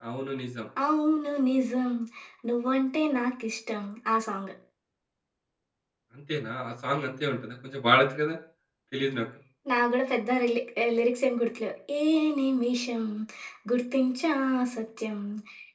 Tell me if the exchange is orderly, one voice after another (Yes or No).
Yes